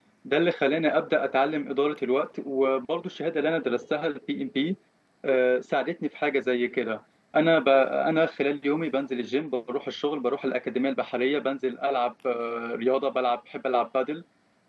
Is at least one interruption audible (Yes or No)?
No